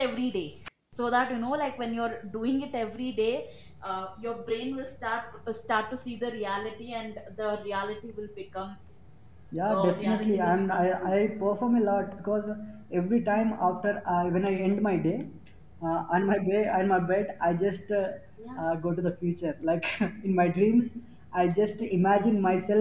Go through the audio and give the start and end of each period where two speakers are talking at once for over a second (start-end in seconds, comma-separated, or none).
9.7-11.2